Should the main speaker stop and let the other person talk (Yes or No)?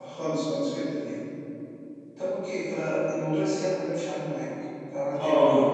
Yes